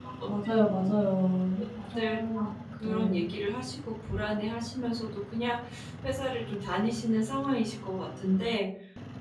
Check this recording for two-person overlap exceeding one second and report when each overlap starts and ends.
none

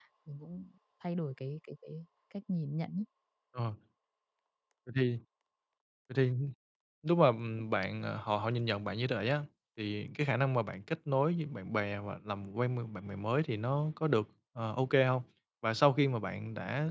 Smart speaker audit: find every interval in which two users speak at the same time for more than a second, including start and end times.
none

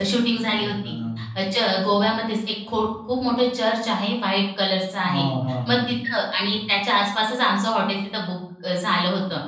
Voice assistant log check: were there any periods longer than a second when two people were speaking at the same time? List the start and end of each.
none

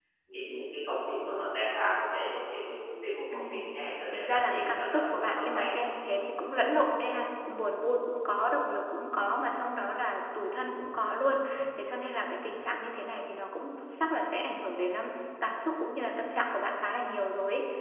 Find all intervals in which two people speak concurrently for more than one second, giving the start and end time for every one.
4.1-5.7

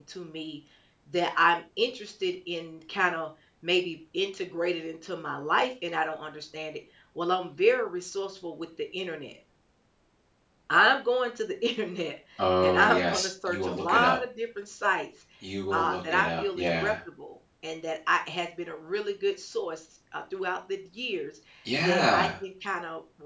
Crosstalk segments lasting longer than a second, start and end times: 12.6-14.2, 15.7-16.9

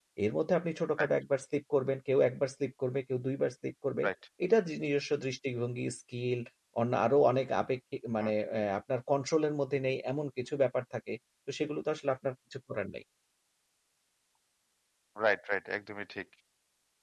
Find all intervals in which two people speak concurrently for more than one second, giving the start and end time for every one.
none

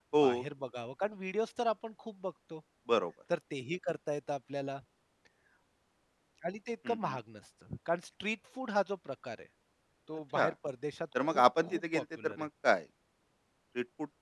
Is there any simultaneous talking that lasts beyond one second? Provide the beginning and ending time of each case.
11.2-12.5

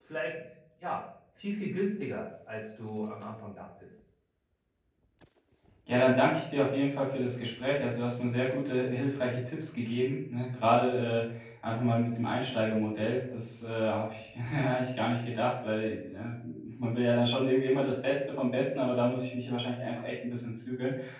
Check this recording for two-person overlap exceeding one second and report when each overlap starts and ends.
none

